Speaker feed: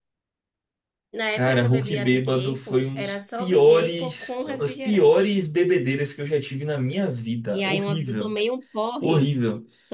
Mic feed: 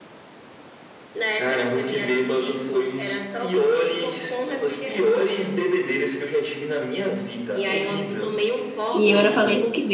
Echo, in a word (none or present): present